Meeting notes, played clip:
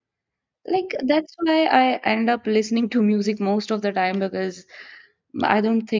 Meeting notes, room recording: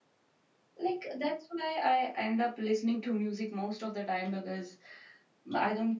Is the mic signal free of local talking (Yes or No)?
Yes